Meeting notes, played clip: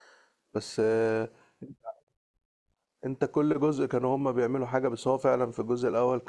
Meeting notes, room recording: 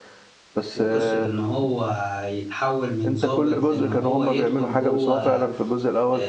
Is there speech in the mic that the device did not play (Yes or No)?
Yes